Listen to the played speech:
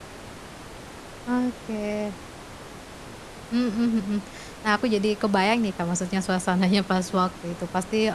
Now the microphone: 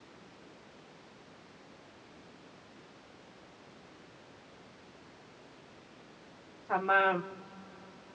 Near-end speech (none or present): present